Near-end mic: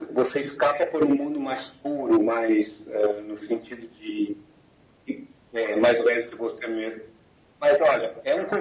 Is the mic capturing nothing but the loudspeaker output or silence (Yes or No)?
Yes